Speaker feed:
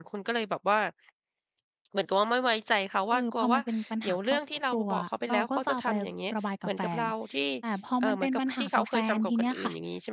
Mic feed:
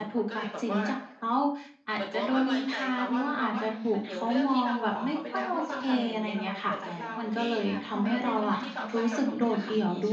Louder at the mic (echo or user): user